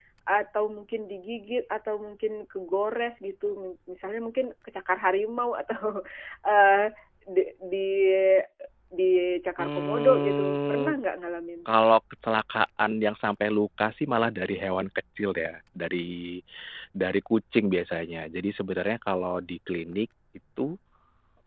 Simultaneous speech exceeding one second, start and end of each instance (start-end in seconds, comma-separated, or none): 9.6-10.9